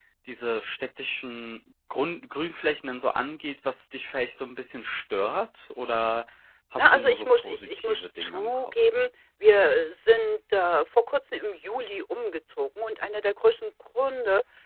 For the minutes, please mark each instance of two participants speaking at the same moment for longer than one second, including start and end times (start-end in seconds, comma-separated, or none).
6.8-8.7